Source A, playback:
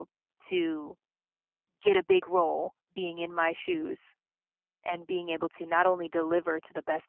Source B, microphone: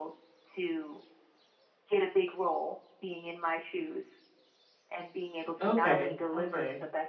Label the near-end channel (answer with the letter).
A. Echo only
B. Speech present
B